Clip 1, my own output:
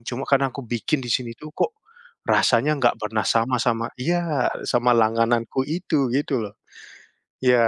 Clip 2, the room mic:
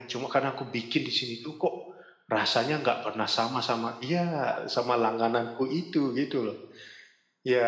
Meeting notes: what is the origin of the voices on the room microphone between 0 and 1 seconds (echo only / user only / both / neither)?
echo only